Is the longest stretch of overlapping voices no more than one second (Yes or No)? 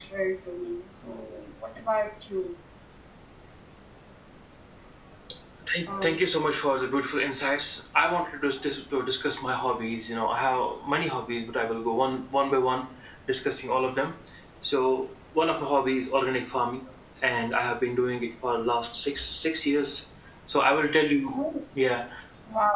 Yes